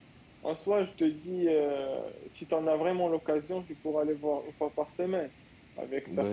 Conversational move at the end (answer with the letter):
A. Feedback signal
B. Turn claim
B